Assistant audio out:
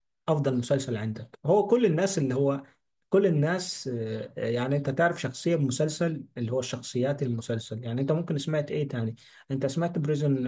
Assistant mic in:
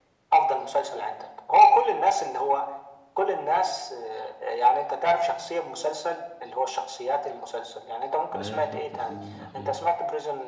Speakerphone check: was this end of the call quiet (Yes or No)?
No